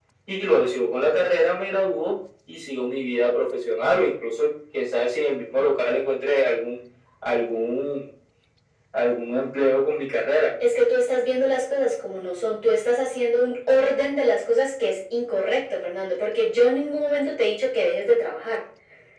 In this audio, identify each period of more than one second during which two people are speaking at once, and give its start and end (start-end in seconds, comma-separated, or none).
none